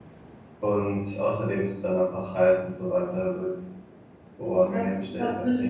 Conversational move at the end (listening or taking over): taking over